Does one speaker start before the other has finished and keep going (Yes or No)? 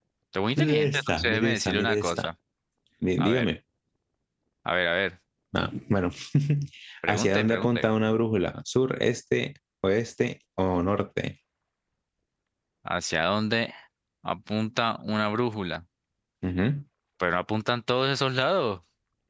Yes